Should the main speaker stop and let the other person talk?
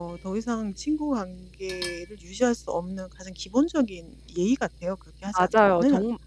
Yes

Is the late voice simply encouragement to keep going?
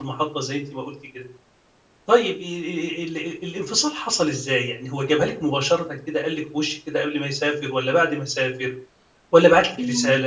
Yes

